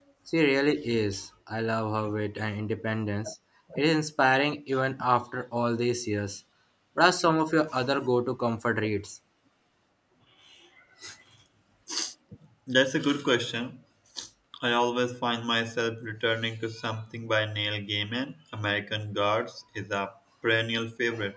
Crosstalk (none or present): none